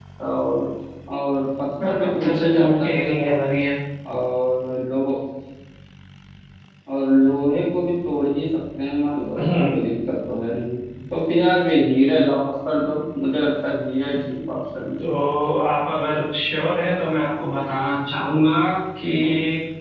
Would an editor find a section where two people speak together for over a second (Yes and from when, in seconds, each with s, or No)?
Yes, from 1.8 s